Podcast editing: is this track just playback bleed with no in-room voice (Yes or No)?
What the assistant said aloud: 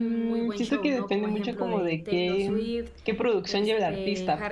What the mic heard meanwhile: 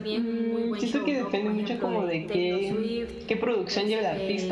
Yes